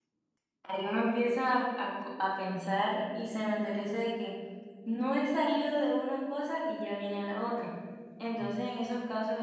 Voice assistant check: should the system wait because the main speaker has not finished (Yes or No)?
Yes